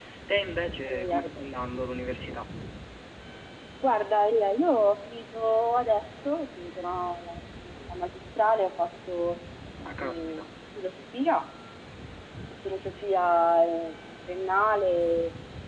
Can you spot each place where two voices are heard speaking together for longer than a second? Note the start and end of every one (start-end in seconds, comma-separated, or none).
none